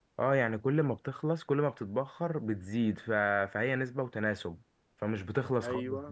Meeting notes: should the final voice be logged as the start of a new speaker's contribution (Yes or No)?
Yes